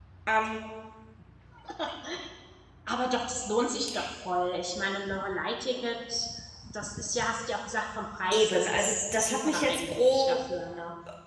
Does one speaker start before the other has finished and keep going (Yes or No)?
Yes